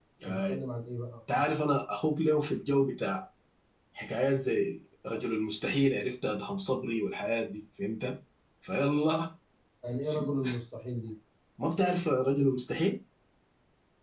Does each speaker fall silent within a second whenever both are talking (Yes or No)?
Yes